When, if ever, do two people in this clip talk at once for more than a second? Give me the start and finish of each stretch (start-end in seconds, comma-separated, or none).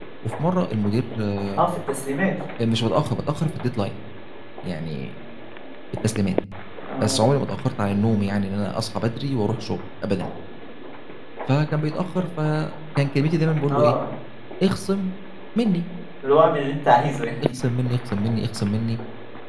none